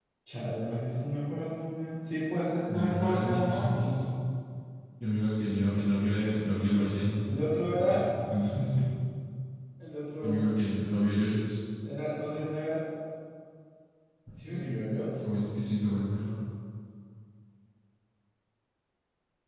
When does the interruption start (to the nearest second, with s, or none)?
3 s